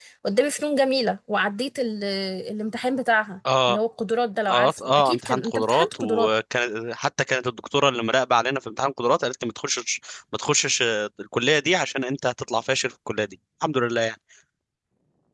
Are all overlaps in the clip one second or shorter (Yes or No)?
No